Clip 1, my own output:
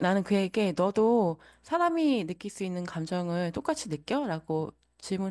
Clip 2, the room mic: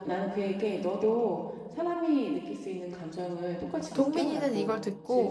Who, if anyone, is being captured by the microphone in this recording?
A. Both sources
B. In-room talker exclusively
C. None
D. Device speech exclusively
A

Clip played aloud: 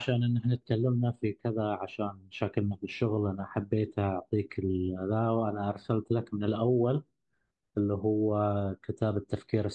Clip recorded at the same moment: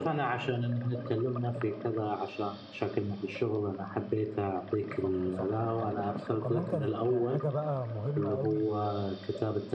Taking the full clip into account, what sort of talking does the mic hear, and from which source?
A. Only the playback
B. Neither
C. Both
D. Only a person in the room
C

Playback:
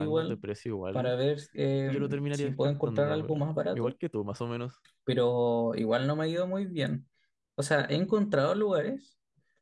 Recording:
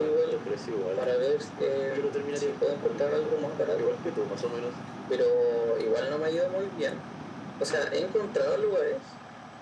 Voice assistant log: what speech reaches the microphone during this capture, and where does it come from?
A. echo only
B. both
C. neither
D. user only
A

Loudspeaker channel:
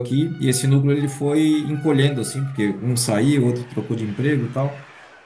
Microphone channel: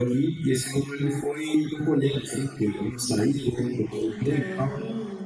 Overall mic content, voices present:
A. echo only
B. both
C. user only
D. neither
B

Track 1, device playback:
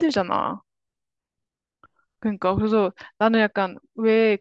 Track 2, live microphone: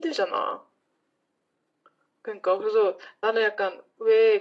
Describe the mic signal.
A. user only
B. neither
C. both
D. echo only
D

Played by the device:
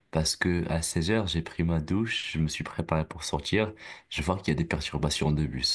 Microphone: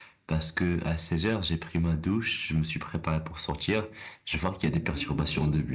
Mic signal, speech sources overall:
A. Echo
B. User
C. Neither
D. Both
D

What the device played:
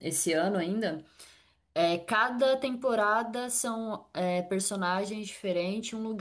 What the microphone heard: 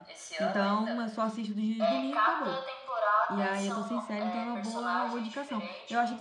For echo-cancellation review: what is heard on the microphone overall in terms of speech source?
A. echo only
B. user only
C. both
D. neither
C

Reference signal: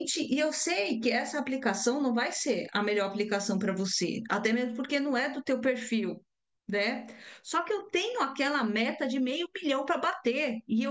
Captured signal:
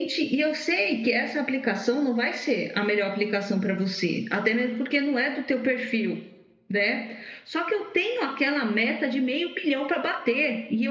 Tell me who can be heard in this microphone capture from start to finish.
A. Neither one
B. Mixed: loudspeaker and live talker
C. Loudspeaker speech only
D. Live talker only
C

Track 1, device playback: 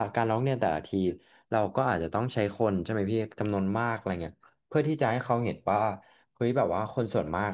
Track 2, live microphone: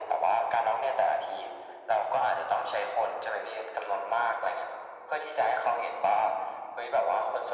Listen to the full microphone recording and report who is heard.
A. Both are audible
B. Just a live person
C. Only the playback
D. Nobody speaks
C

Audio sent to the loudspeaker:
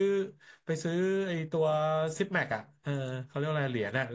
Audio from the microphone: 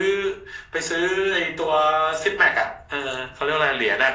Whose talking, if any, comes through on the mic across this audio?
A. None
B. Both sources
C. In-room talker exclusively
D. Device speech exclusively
D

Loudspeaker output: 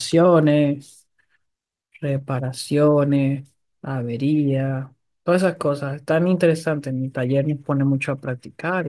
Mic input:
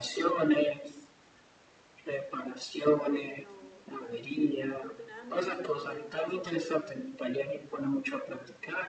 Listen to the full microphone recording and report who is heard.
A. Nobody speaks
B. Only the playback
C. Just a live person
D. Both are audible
D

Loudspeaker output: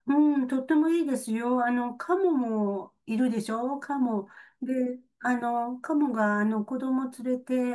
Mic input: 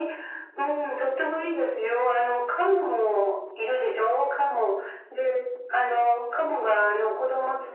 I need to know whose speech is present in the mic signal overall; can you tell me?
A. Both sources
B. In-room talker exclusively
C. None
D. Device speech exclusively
D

